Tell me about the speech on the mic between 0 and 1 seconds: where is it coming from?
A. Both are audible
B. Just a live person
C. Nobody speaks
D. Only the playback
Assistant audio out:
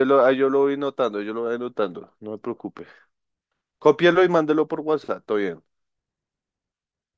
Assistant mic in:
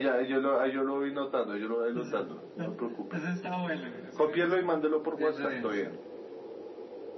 D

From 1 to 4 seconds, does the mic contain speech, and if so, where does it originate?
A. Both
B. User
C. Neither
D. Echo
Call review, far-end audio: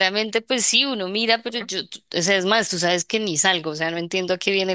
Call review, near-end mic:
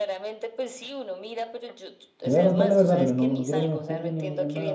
A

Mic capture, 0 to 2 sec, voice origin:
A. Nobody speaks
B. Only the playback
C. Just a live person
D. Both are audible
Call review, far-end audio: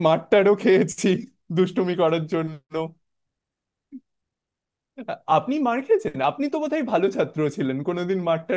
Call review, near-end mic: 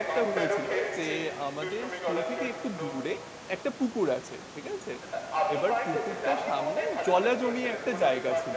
D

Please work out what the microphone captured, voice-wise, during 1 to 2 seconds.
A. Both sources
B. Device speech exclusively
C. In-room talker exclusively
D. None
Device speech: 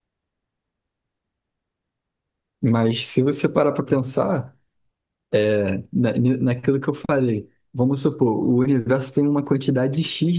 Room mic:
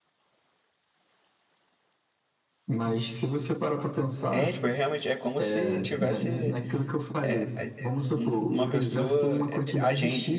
D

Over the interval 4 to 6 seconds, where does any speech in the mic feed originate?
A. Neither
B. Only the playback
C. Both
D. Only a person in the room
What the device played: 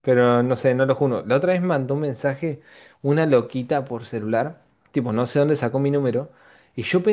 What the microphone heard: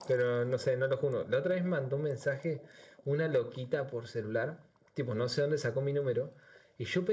B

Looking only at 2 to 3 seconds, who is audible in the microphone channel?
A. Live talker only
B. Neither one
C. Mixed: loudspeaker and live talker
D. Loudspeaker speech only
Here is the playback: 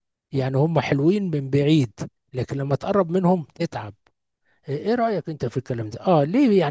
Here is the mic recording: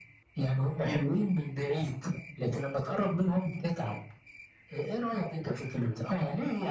D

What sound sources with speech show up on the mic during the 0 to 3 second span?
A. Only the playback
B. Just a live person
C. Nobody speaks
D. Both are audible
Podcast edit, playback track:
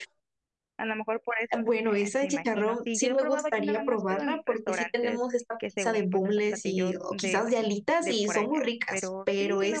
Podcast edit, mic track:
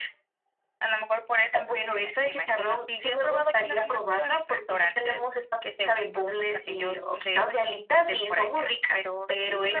A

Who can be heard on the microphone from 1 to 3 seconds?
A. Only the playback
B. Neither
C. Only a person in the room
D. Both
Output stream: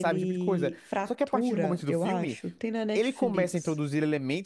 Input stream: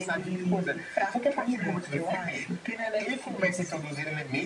A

